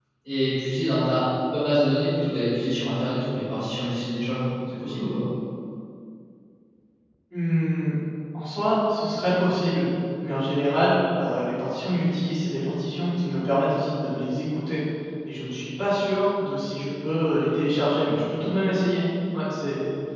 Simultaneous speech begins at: none

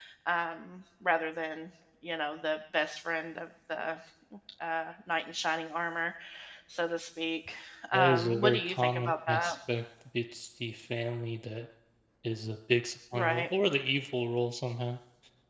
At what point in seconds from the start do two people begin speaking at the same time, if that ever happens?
7.9 s

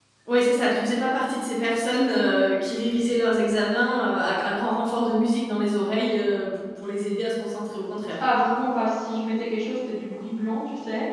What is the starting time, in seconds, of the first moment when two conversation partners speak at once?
none

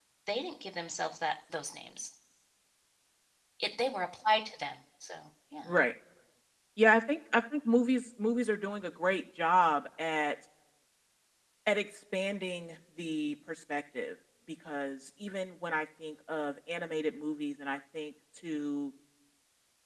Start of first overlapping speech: none

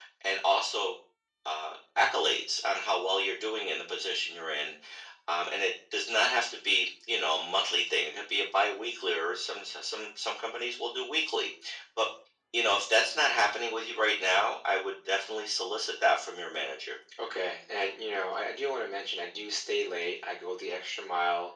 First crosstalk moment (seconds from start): none

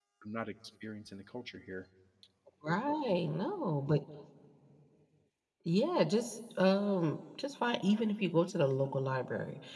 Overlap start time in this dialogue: none

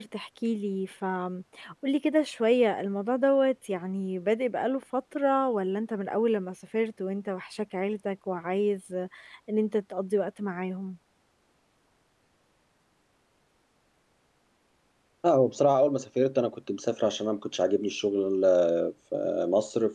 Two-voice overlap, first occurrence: none

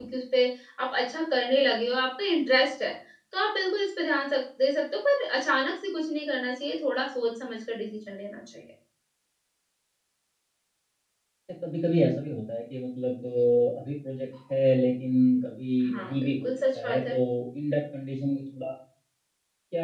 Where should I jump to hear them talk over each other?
15.8 s

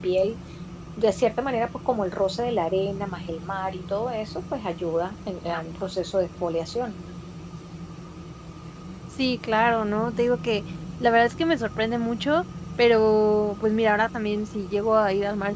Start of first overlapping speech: none

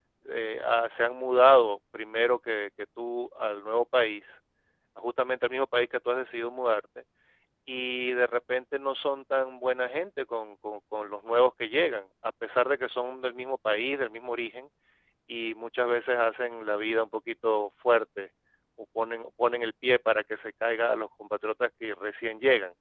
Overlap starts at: none

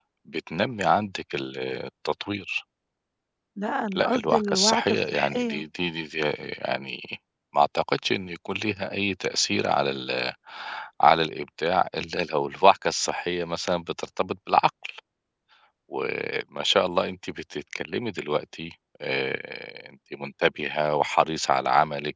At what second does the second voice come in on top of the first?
4.0 s

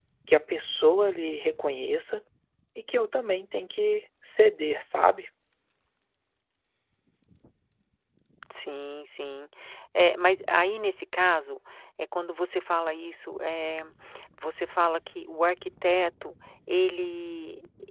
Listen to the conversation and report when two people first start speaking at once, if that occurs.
none

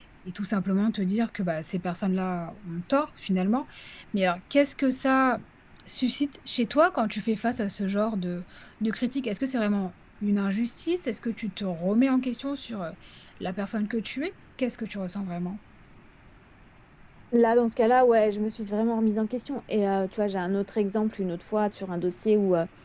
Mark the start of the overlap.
none

